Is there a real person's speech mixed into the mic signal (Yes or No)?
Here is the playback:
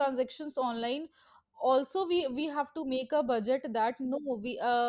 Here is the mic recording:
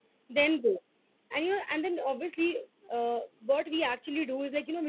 Yes